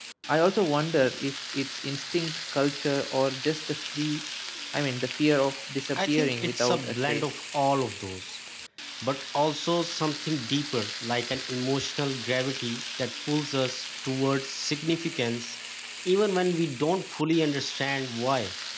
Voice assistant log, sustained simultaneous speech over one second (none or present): present